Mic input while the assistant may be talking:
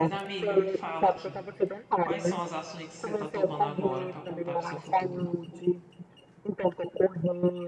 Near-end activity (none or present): present